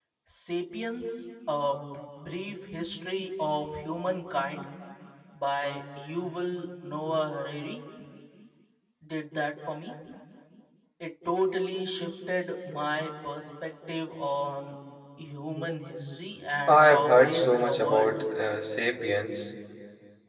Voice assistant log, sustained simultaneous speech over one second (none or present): present